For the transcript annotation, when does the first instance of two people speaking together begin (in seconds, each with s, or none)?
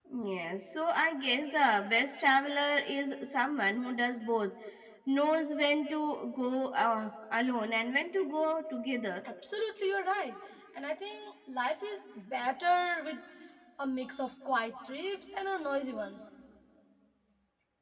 none